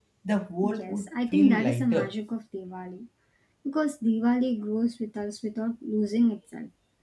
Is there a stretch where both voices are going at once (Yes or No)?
Yes